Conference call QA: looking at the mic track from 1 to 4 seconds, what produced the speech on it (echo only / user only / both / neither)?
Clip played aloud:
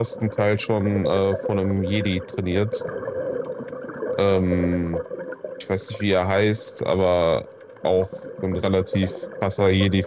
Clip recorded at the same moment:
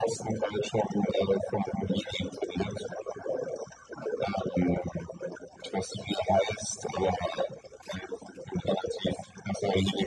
echo only